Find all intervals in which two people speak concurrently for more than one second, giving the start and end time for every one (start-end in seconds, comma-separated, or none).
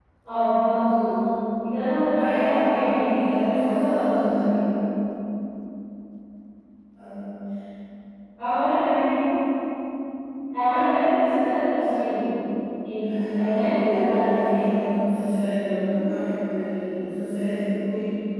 2.2-4.4, 13.0-14.8